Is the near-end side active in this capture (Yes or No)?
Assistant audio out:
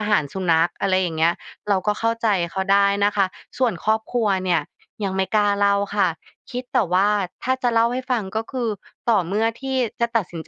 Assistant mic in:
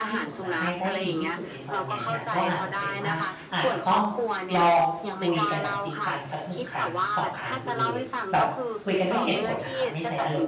Yes